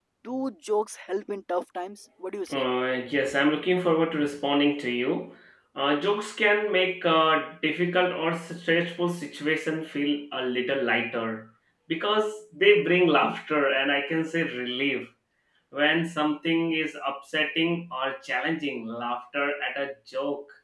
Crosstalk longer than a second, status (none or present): none